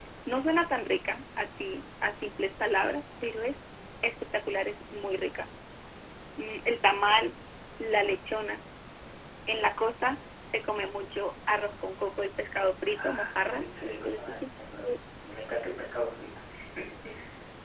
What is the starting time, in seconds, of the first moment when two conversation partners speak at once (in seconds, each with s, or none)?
12.9 s